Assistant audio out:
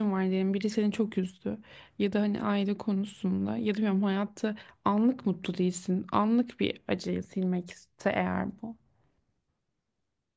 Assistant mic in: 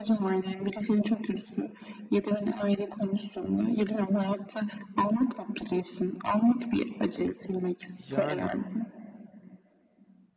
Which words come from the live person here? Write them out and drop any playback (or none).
Yani